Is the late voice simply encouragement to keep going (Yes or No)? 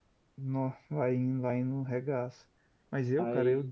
Yes